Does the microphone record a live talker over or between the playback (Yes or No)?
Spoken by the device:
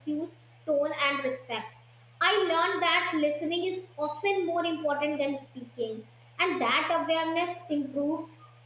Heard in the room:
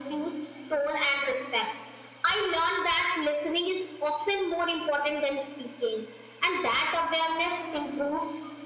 No